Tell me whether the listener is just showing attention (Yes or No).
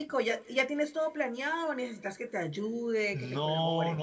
No